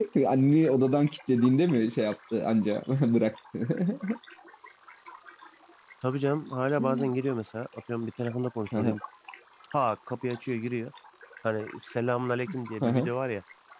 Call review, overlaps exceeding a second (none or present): none